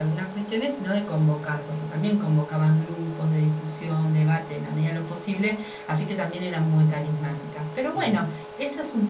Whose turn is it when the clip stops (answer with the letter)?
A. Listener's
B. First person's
B